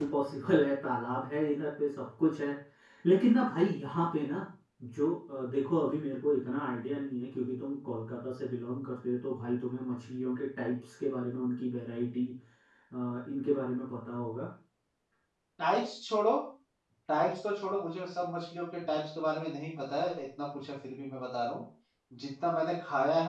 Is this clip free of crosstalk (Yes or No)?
Yes